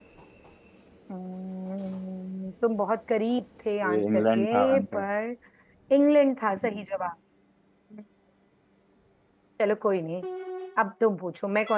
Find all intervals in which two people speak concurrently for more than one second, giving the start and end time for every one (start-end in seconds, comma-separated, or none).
3.8-5.0